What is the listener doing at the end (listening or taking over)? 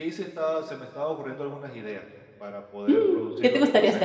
taking over